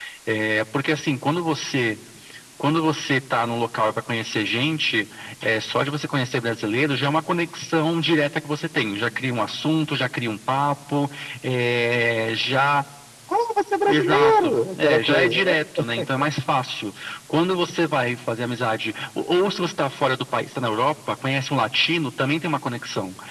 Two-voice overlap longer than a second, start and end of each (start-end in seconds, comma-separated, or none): 13.8-15.5